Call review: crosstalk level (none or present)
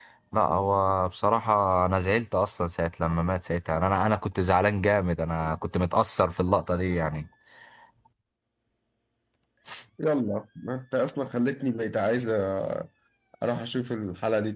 none